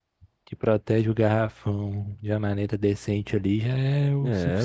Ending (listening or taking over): taking over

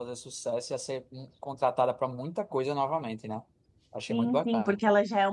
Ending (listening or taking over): taking over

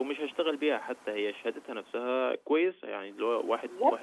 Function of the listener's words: listening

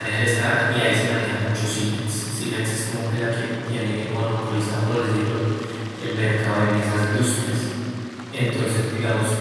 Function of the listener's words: listening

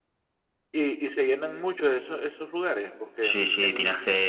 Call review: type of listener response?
taking over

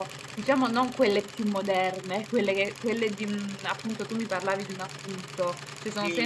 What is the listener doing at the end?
taking over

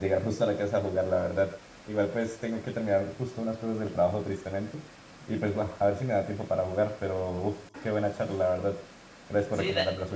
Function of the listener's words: taking over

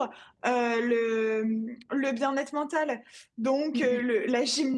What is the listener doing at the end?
listening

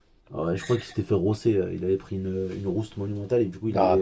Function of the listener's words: taking over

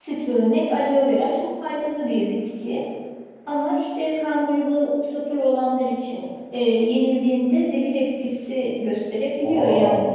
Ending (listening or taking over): listening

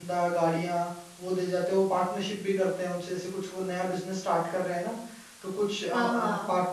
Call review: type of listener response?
listening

